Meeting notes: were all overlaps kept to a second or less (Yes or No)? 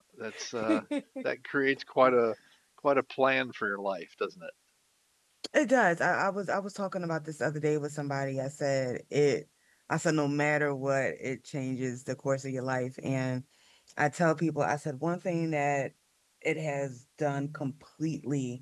Yes